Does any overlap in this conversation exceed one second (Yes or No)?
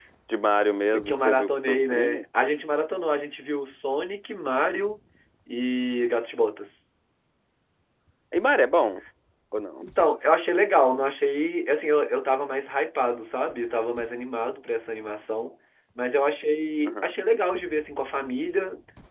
Yes